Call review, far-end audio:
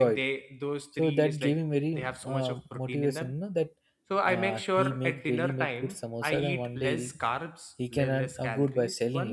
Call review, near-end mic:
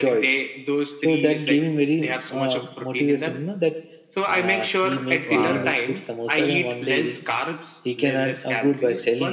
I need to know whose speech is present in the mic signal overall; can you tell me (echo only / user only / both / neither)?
both